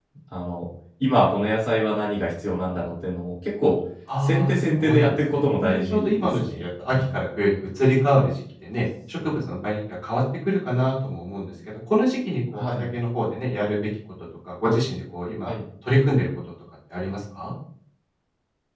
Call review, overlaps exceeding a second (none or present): present